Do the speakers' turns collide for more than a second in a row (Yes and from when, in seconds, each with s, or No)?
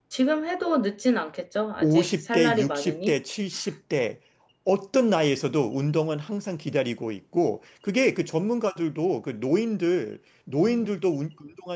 Yes, from 1.8 s